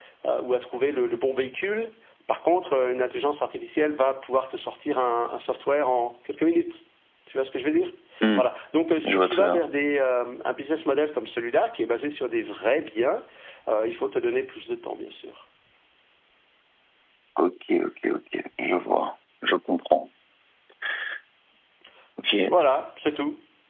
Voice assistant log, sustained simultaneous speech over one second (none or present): none